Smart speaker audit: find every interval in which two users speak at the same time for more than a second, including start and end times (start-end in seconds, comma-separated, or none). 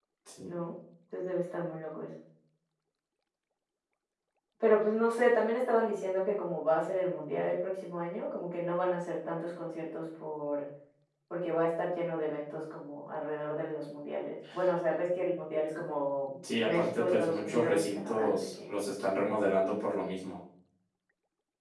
16.6-18.5